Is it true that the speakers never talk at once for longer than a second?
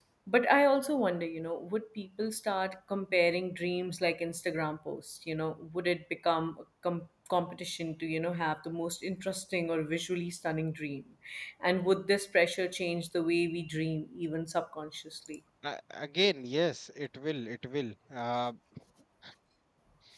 Yes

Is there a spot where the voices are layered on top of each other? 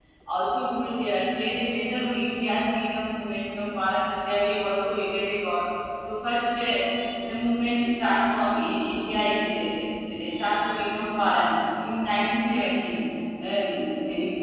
No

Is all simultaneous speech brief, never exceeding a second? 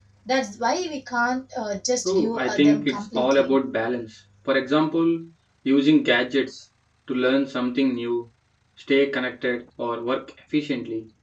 No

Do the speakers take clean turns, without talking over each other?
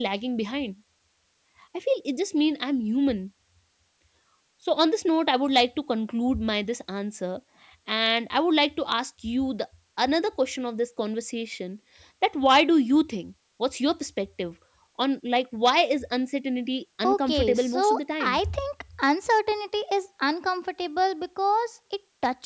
No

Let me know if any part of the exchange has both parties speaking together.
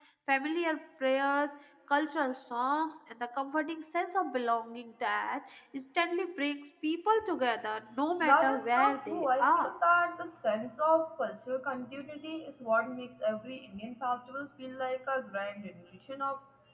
Yes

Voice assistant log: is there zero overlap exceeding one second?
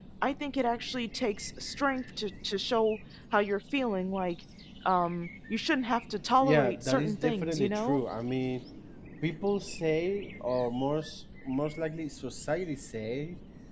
No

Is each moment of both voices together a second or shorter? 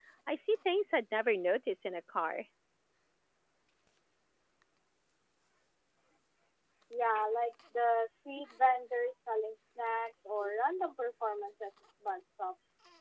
Yes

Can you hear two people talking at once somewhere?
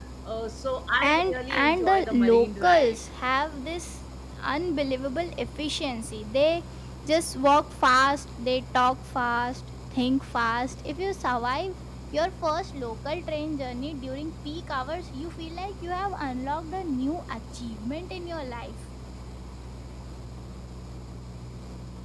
Yes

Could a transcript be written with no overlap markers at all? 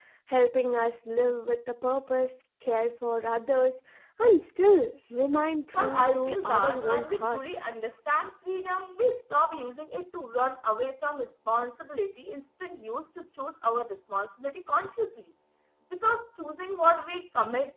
No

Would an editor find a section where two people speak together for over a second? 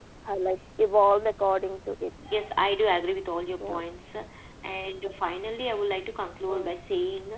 No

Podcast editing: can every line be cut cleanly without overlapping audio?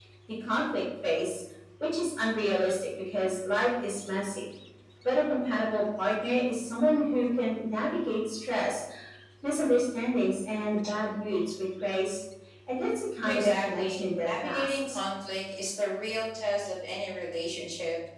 No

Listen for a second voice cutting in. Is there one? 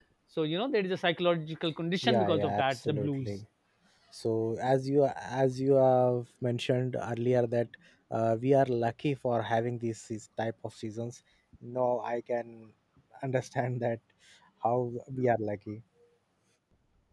Yes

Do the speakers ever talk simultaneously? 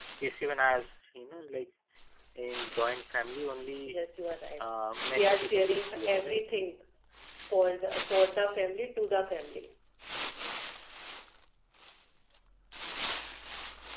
Yes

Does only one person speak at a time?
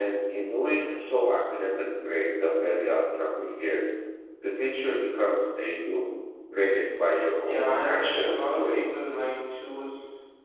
No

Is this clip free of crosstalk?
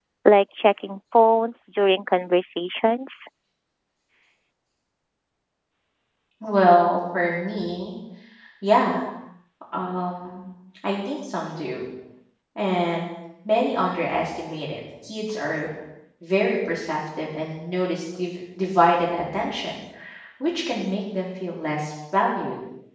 Yes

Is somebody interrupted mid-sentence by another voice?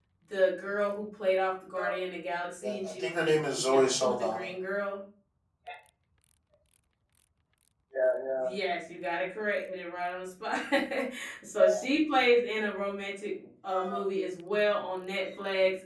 Yes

